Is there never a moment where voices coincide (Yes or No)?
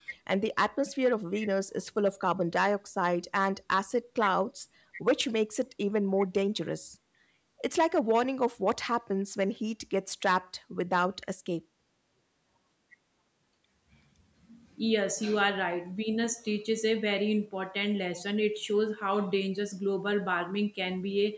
Yes